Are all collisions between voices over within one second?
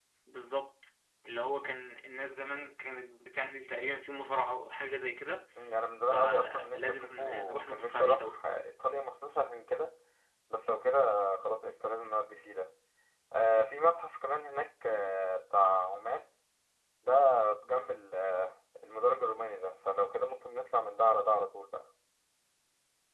No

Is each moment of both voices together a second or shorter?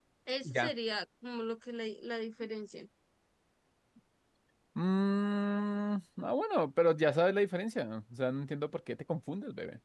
Yes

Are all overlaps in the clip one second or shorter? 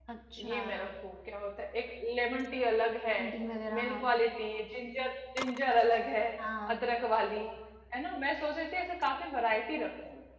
Yes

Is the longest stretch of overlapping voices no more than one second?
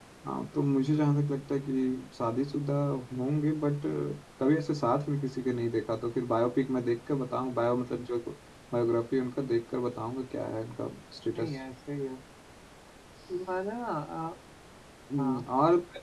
Yes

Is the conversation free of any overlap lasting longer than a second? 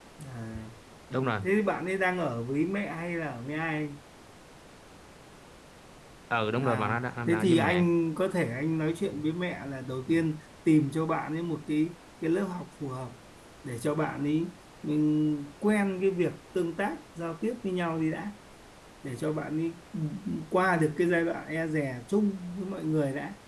No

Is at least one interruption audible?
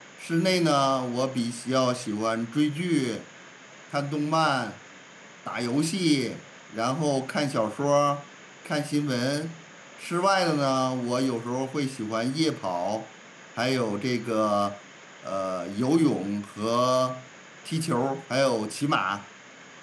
No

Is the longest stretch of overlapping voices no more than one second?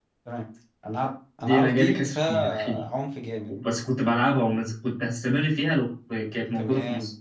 No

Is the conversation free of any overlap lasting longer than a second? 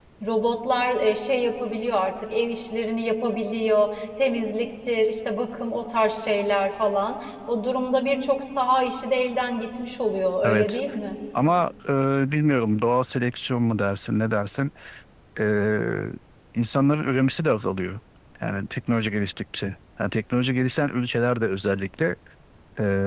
Yes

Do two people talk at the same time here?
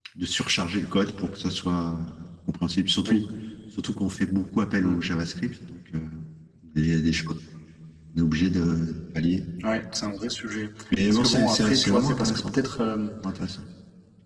Yes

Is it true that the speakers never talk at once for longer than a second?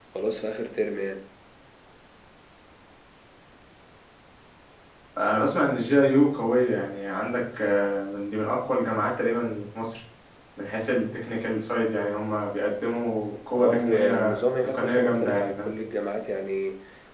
No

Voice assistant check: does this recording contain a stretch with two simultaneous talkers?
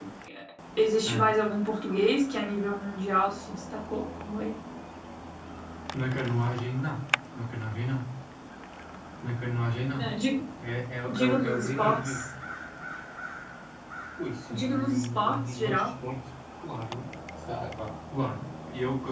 Yes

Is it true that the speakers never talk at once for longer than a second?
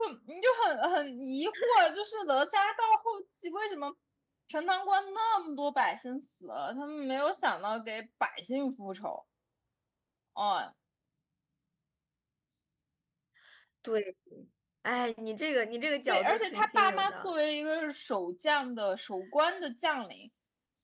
No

